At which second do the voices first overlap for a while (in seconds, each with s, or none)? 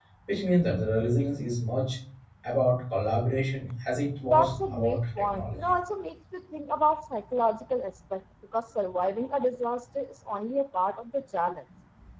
4.3 s